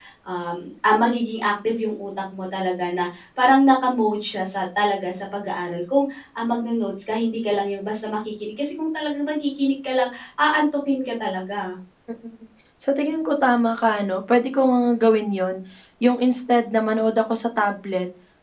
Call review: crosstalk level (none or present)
none